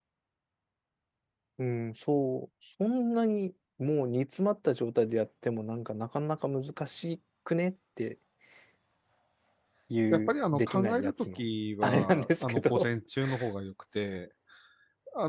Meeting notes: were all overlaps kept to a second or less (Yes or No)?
No